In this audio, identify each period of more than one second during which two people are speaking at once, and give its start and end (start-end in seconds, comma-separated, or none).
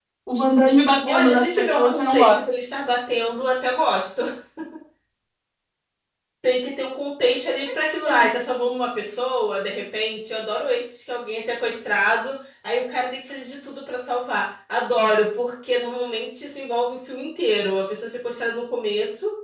1.0-2.4